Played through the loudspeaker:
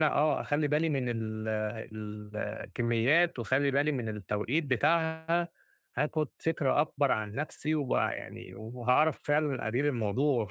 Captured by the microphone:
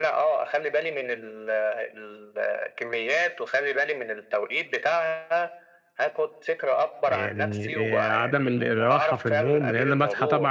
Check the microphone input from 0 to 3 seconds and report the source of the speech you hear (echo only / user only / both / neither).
echo only